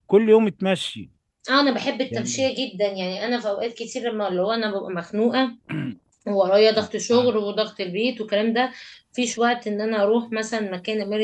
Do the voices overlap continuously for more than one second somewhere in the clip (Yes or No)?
No